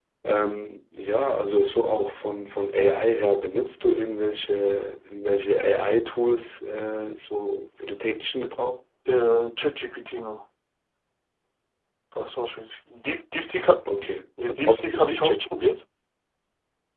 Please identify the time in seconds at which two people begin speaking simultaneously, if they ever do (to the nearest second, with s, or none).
14 s